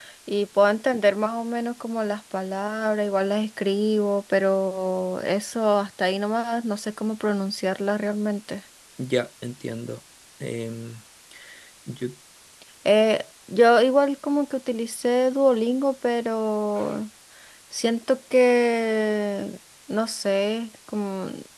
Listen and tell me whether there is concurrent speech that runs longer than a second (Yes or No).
No